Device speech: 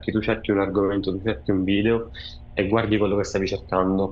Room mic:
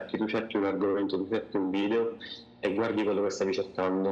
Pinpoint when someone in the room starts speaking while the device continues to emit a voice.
none

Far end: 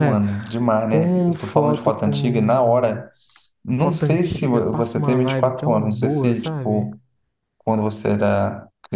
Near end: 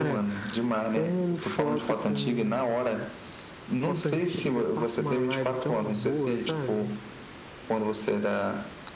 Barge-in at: none

